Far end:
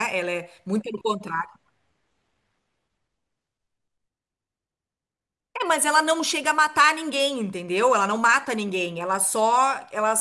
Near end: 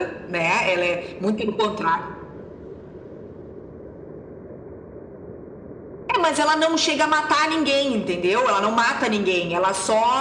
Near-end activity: none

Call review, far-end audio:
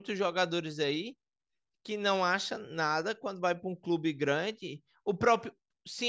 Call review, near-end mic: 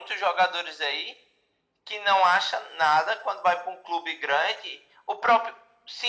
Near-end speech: none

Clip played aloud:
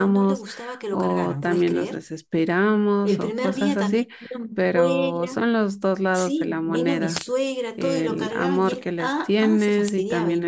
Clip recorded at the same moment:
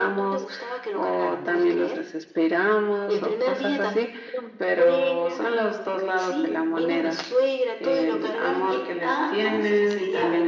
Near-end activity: none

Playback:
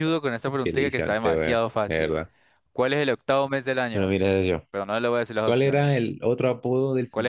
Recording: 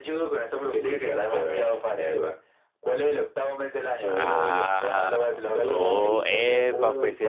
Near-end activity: present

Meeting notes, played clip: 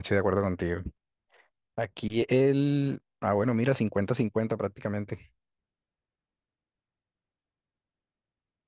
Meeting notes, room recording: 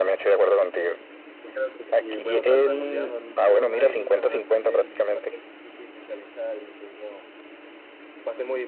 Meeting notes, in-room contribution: present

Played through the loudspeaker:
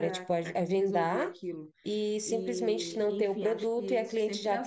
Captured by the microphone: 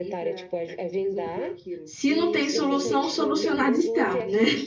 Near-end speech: present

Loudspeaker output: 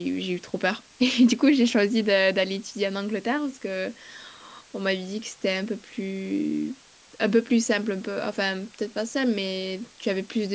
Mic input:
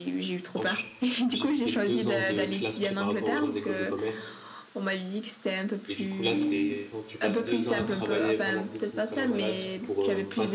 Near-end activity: present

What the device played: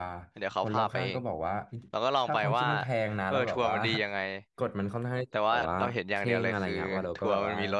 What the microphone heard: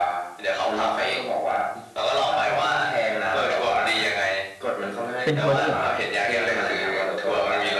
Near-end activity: present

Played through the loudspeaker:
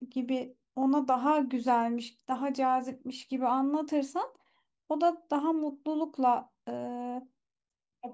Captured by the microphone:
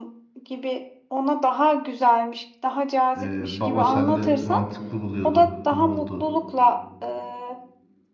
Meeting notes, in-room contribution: present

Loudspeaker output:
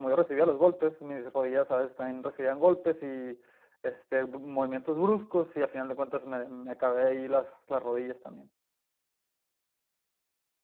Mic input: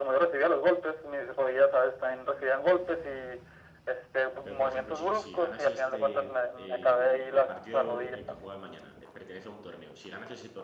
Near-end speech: present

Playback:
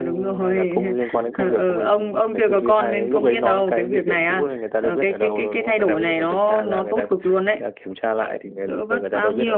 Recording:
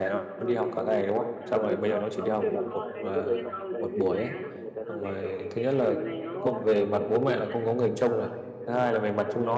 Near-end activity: present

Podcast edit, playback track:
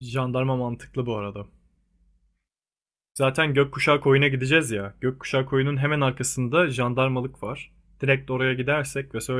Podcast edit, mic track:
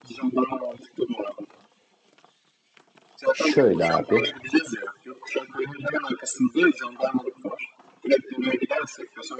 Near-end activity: present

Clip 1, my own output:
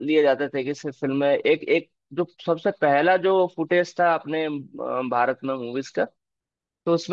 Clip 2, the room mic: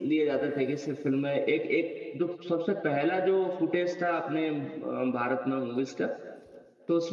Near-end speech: none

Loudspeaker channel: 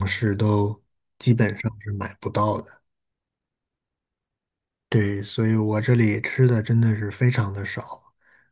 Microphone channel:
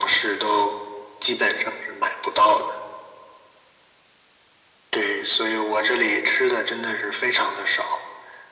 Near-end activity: none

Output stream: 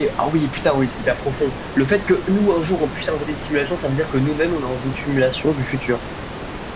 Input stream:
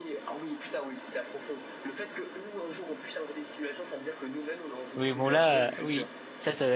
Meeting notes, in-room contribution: present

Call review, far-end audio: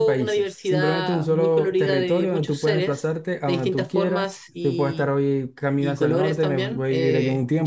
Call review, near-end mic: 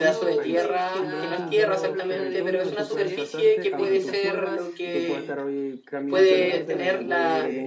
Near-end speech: present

